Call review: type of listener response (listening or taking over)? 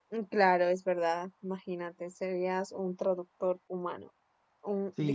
taking over